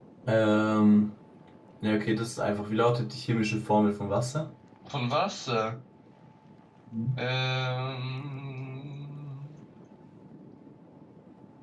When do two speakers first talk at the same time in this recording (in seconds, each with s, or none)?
none